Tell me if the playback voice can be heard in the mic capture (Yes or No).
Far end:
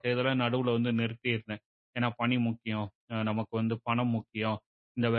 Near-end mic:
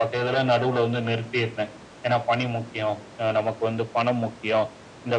Yes